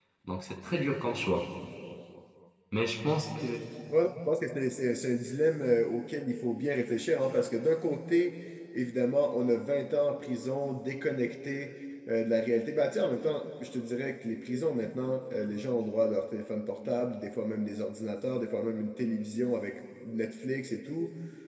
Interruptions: none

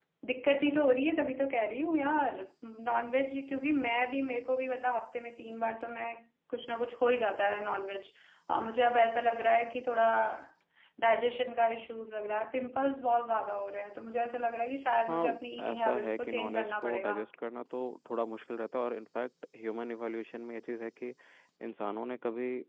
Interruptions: present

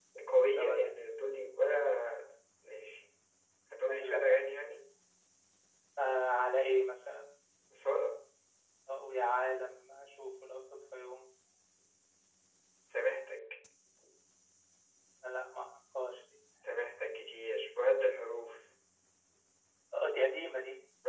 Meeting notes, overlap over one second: none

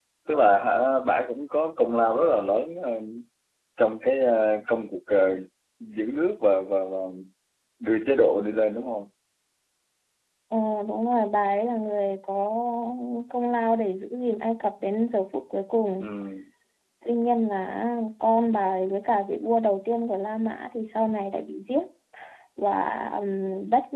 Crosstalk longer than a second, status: none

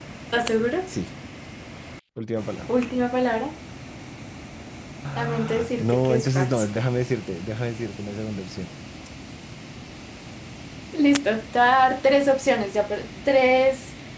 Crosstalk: present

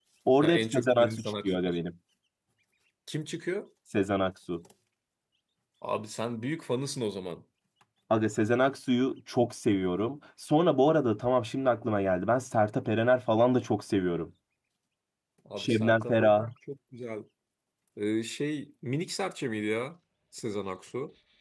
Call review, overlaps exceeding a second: present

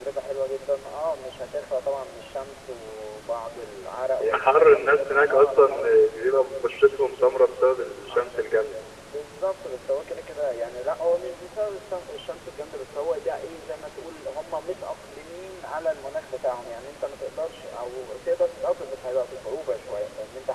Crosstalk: present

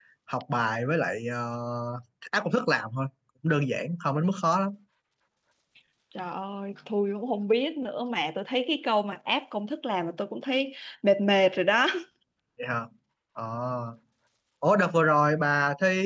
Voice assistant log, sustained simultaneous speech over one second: none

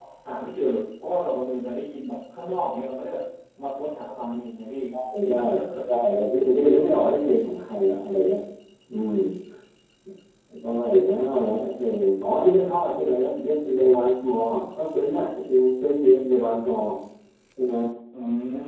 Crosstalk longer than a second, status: none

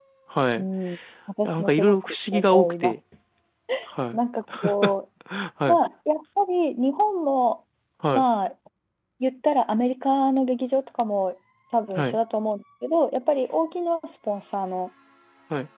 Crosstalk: present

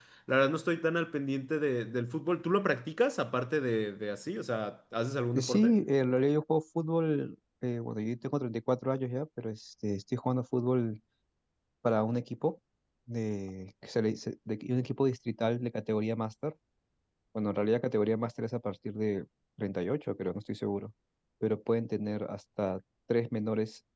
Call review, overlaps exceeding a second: none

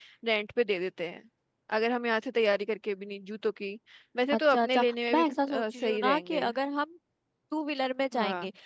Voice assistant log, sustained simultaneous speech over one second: present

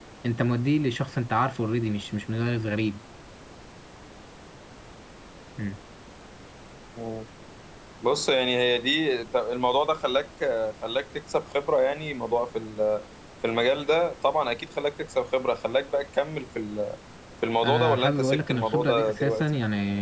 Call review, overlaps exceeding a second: present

